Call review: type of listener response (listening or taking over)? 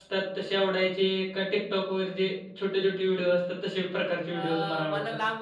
taking over